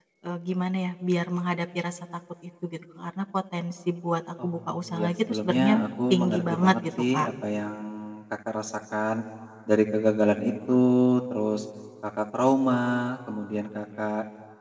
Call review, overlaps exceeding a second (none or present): present